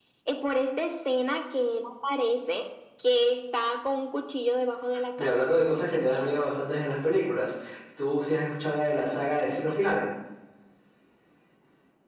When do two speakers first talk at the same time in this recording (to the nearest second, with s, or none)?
5 s